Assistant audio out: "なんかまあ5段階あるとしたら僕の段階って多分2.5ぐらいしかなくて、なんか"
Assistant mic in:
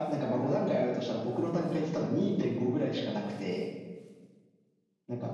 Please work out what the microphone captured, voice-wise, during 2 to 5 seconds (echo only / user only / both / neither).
echo only